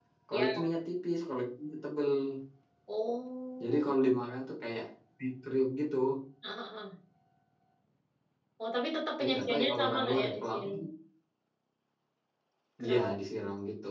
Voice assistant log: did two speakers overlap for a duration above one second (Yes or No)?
Yes